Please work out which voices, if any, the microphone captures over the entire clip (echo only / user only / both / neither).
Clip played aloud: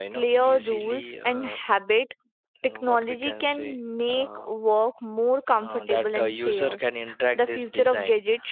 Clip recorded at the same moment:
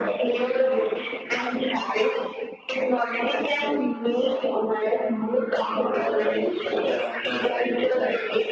echo only